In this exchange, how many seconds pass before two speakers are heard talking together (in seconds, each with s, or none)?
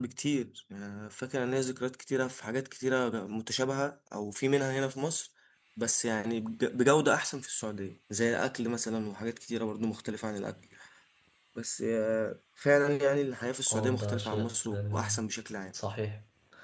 13.7 s